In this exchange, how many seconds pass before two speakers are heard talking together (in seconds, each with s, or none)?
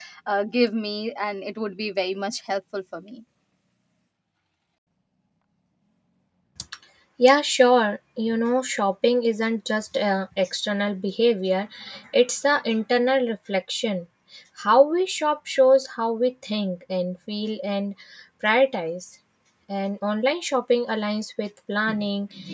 none